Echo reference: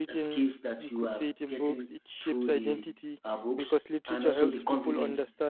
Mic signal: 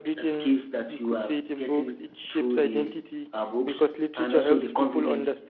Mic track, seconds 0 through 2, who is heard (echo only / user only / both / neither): echo only